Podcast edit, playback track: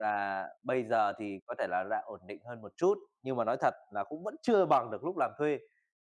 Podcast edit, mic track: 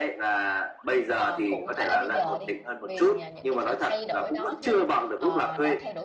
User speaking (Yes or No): Yes